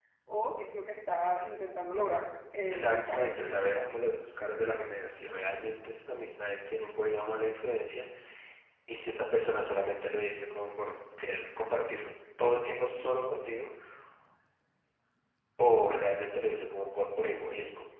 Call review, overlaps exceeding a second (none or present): present